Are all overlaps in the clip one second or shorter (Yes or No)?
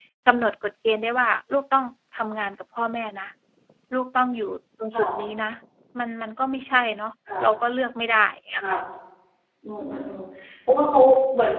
Yes